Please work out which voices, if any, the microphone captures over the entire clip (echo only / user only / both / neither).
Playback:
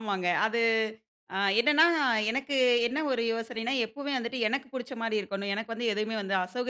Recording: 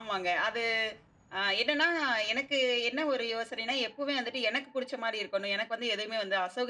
echo only